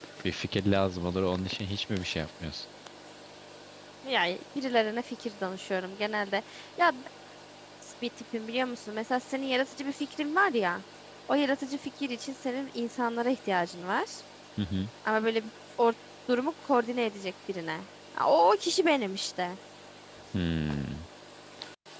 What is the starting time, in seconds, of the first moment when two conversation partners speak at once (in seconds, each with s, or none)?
none